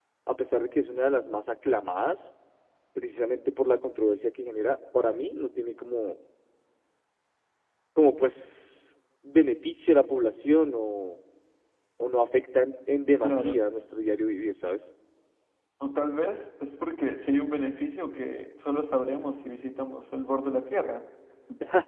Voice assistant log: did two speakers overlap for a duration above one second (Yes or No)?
No